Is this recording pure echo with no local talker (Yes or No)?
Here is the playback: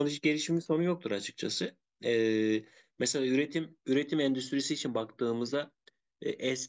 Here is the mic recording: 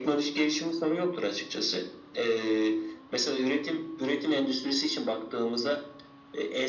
Yes